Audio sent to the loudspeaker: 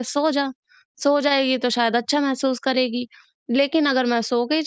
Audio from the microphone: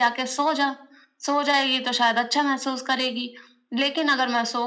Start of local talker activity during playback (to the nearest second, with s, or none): none